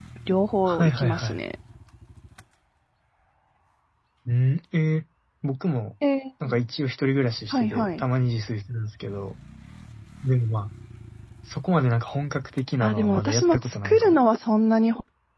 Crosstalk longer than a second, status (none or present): present